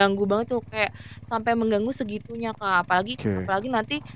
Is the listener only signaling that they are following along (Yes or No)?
Yes